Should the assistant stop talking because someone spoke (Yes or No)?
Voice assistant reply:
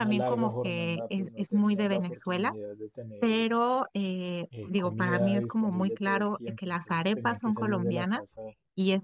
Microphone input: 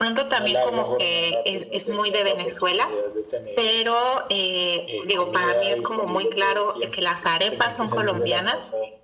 Yes